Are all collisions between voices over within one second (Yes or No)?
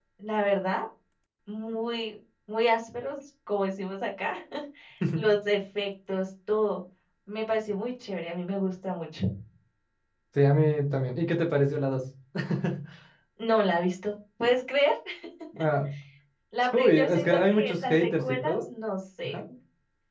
No